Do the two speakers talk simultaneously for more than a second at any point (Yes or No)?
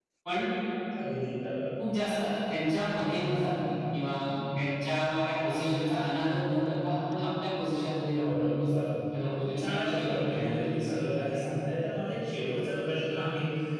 Yes